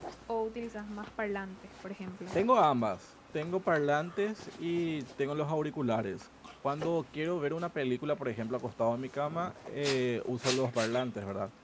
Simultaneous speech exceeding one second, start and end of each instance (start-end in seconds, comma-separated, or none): none